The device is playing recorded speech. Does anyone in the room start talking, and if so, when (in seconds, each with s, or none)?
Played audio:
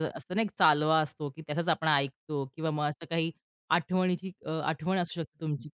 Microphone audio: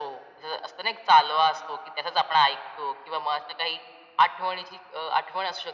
none